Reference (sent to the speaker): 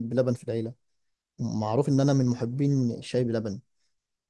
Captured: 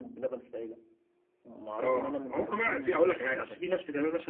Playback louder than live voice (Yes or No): No